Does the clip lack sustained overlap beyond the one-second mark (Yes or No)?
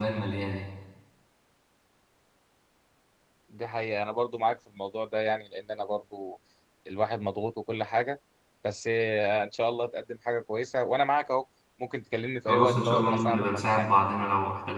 No